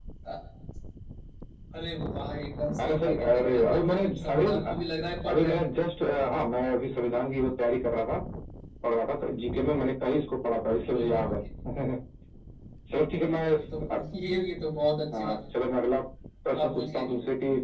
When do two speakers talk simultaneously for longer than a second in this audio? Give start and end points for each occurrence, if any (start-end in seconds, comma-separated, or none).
2.8-4.5